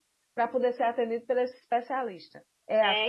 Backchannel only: No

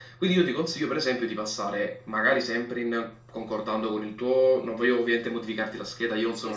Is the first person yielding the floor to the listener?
No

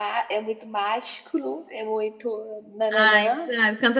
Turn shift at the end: Yes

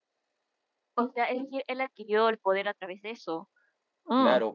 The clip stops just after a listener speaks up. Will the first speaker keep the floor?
No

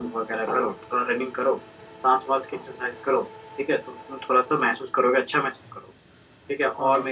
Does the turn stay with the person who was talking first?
Yes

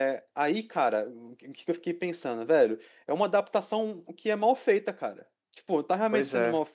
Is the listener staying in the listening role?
Yes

